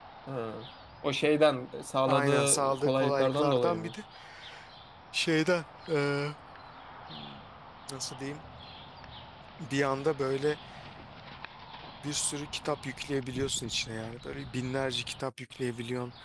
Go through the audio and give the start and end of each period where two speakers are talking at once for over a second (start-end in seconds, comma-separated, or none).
2.1-3.9